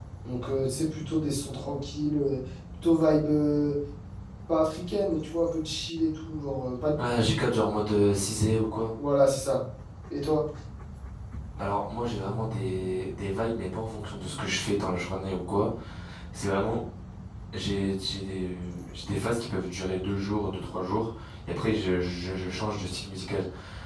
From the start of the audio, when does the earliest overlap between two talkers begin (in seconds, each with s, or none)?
none